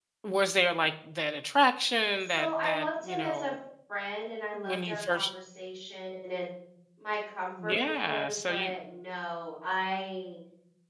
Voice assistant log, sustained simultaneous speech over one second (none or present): present